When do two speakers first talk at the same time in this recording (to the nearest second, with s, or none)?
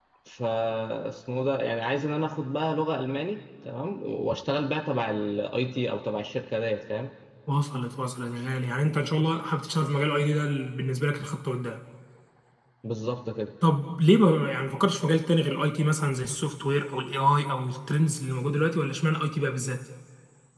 none